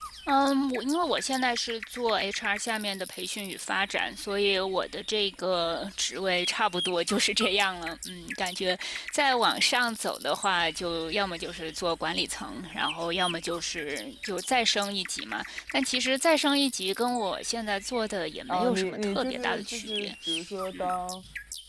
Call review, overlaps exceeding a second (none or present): present